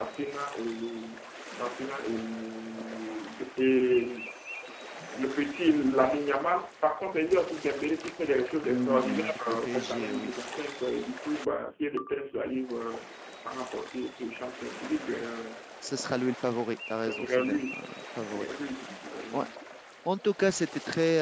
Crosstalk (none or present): present